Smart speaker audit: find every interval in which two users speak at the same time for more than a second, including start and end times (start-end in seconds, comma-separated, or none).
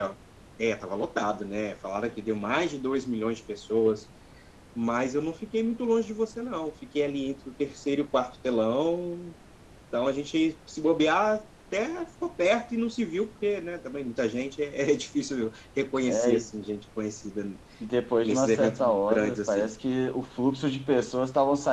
18.2-19.8